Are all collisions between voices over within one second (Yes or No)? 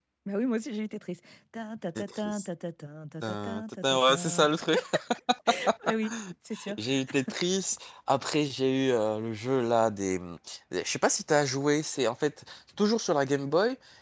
No